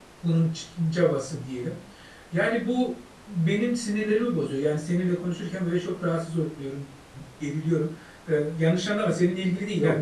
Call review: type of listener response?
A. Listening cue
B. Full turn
A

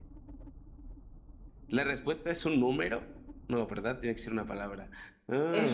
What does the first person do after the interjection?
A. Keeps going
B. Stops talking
B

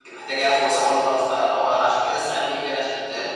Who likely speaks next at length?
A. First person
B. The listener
A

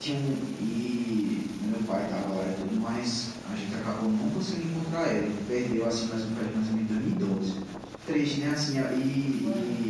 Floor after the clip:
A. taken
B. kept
B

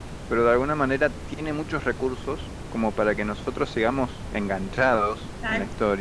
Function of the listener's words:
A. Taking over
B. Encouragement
A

